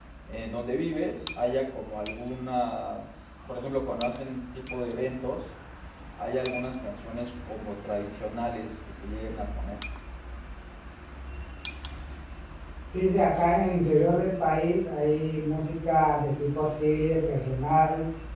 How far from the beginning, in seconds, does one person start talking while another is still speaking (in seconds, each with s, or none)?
none